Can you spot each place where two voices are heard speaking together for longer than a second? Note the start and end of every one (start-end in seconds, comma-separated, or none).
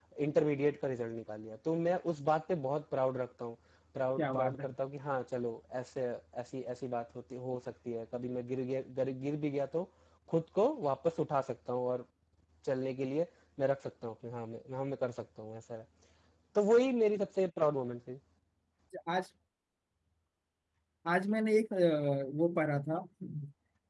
none